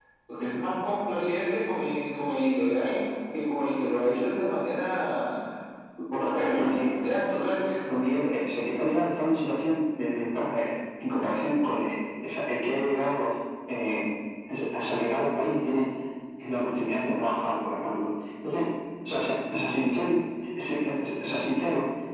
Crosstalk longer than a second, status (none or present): none